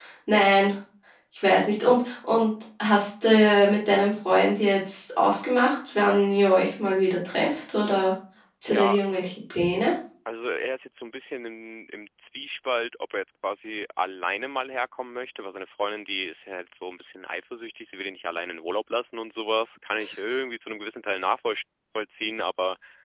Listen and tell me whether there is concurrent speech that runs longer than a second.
No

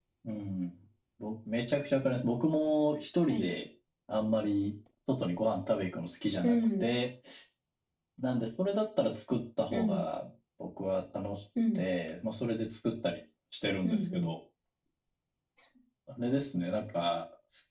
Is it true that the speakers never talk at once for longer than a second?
Yes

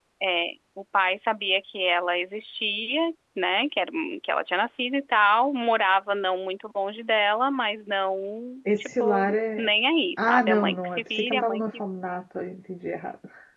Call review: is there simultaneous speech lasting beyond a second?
Yes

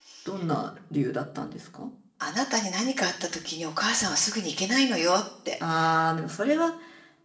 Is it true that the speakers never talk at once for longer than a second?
Yes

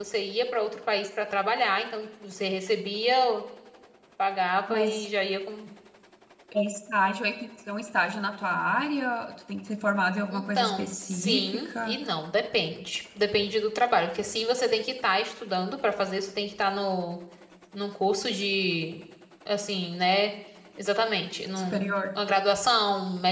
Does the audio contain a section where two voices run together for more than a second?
Yes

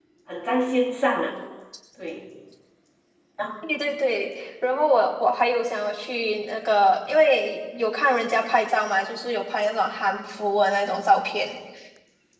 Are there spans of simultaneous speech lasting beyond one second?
No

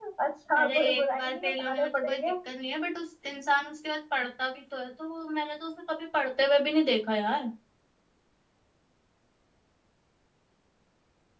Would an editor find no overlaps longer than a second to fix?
No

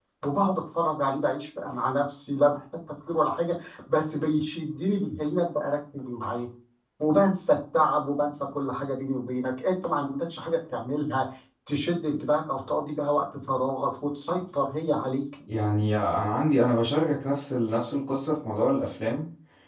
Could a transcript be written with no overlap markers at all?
Yes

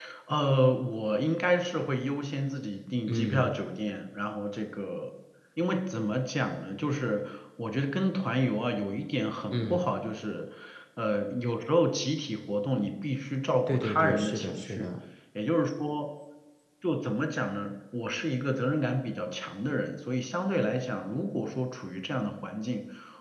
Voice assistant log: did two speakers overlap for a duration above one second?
Yes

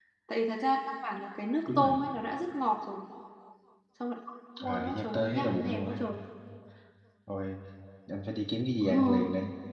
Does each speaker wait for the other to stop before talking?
No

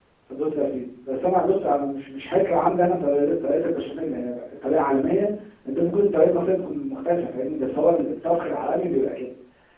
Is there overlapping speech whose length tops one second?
No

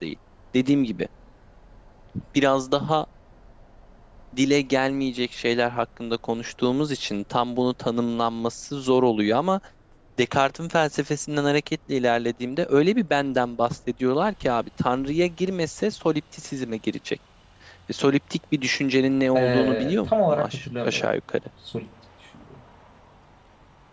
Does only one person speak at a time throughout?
No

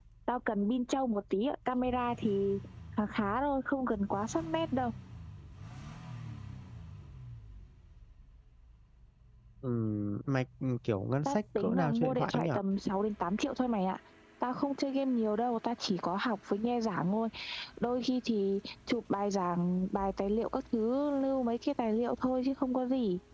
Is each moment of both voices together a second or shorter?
No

